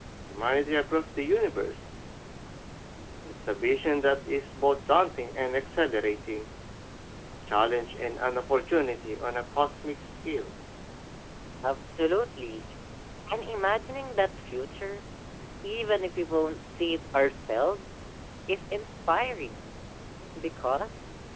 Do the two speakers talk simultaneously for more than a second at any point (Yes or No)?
No